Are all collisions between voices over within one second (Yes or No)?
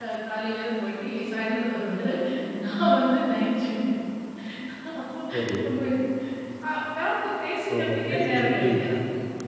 No